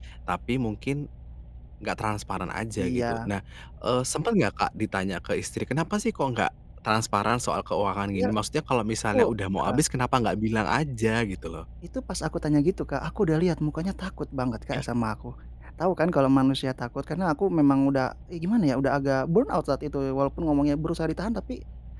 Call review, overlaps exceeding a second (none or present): none